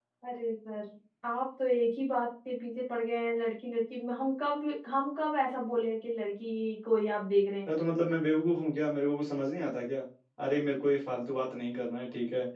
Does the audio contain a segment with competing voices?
No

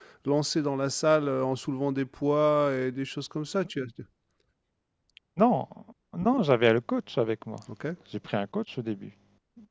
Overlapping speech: No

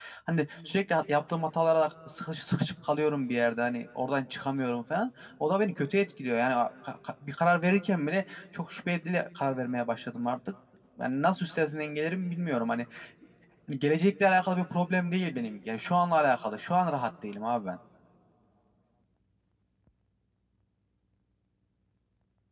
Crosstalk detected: No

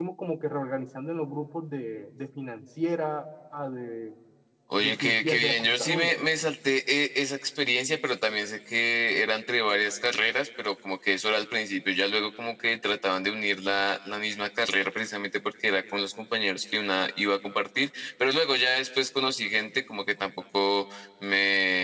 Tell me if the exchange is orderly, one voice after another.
No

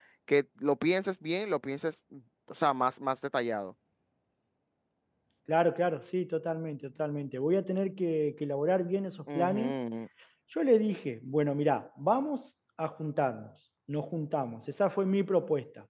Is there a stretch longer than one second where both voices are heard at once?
No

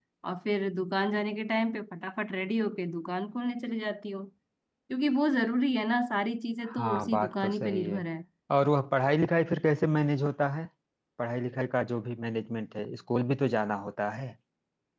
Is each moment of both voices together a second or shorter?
No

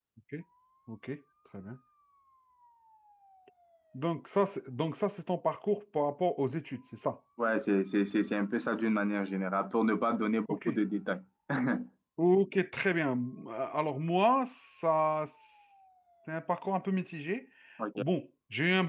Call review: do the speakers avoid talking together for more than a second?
Yes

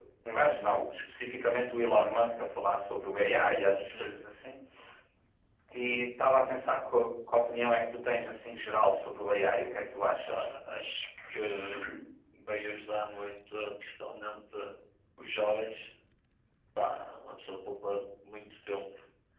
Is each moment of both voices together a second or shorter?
Yes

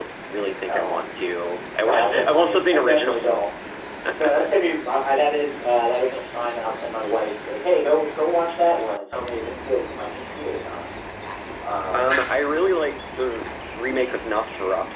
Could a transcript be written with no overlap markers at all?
No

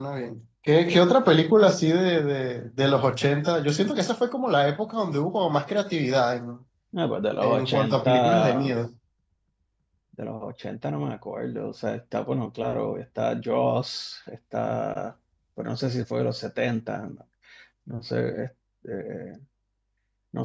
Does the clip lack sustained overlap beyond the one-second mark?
No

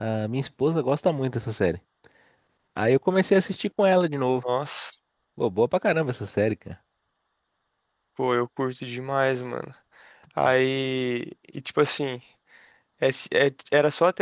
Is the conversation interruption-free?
Yes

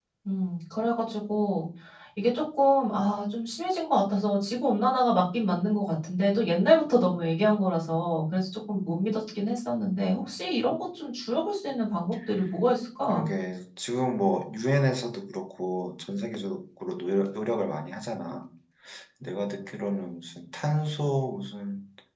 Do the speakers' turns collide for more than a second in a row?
No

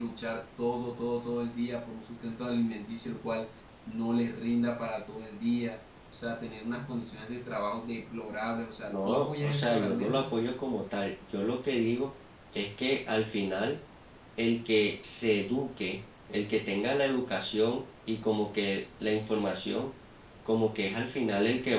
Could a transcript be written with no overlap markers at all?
No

